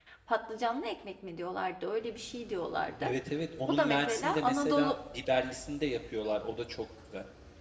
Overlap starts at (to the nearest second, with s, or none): 4 s